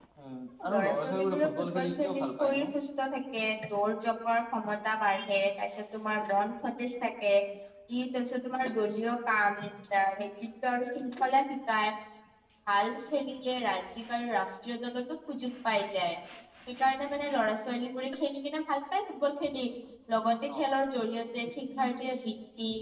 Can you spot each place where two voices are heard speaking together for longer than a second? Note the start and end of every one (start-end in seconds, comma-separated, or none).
0.7-2.7